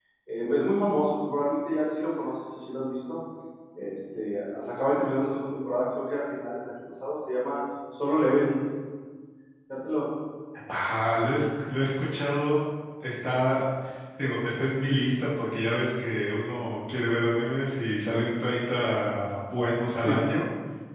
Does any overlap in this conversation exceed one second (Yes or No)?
No